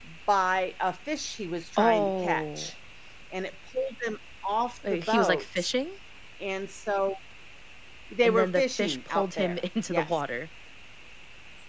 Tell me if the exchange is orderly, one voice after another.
No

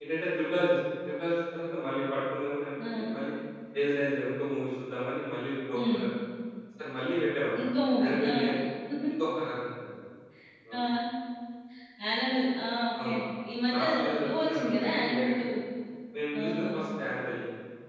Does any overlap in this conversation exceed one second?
Yes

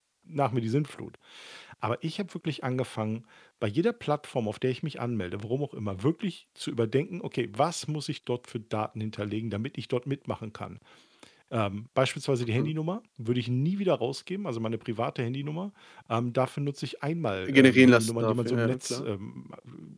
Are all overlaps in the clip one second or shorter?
No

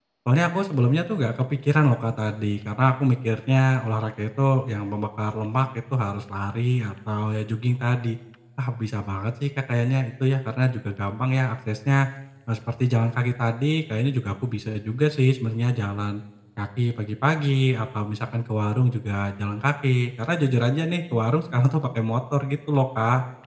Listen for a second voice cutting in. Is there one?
No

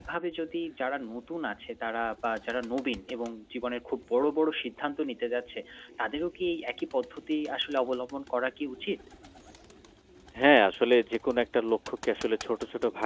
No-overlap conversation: Yes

